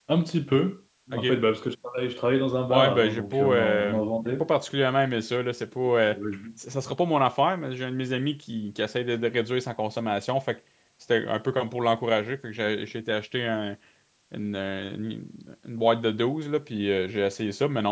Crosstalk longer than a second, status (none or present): present